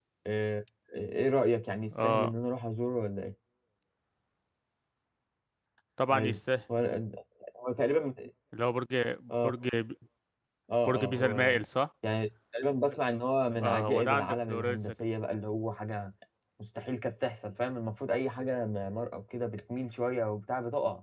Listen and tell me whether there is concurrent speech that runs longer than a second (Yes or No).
Yes